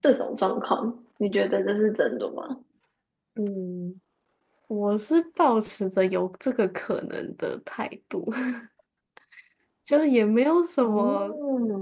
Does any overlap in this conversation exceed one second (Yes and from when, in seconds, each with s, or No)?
No